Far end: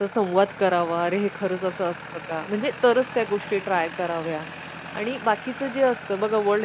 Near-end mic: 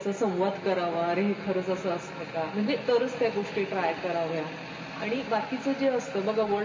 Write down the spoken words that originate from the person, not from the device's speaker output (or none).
none